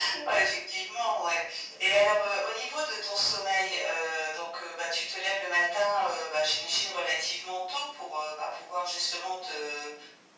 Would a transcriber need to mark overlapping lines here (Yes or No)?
No